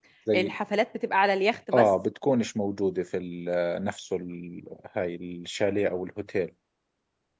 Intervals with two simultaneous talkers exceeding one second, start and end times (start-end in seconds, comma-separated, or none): none